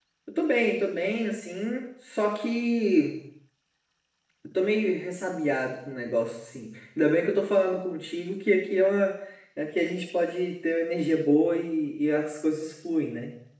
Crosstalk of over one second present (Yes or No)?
No